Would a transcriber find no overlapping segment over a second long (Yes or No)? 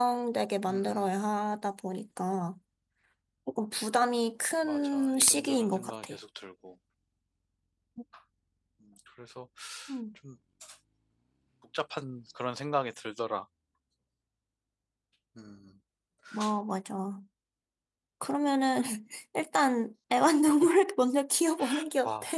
No